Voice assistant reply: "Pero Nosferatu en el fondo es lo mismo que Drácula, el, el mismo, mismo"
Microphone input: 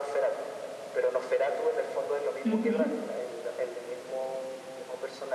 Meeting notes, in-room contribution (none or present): present